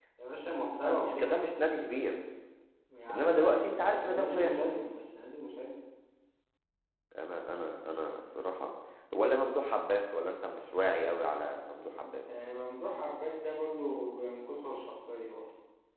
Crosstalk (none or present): present